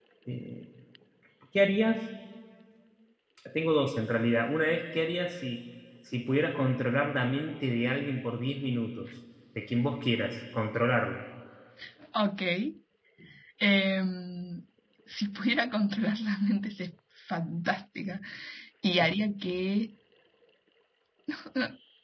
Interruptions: none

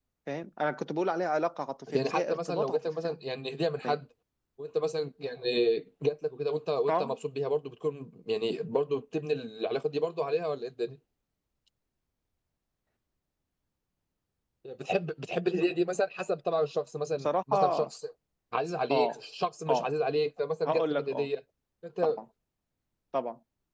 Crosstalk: present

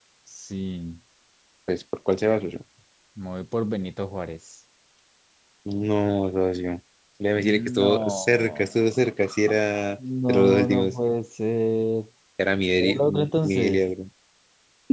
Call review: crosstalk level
present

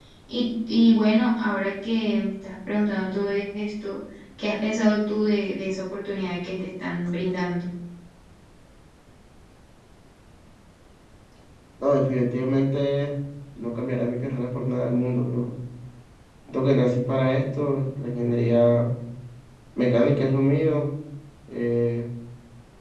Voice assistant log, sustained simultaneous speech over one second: none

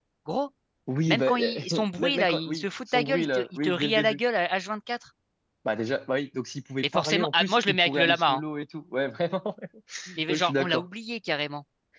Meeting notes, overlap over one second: present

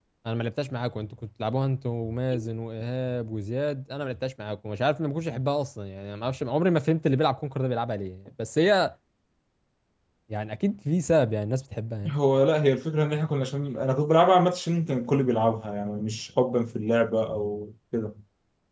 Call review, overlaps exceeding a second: none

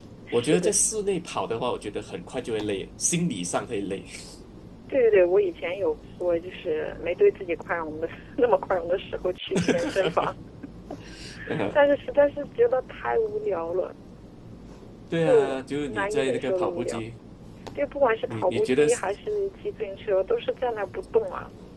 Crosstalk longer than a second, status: present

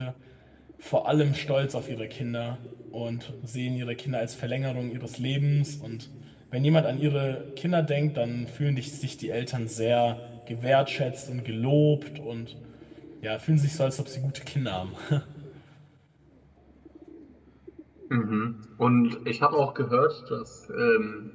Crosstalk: none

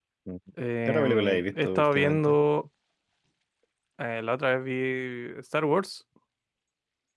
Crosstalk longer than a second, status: present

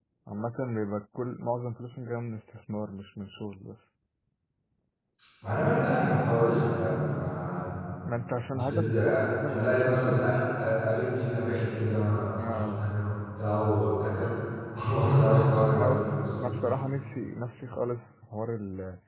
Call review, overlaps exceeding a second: present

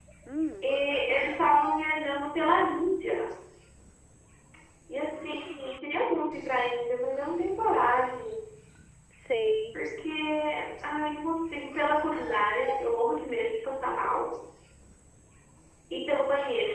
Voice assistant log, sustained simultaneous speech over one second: none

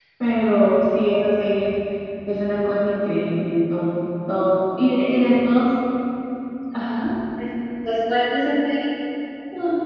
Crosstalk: none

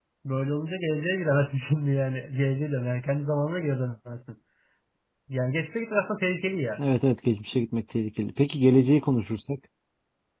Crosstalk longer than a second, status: none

